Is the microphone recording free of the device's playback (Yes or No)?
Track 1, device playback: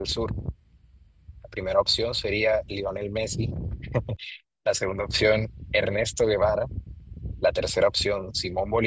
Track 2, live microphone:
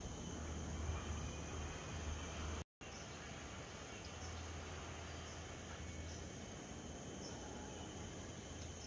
Yes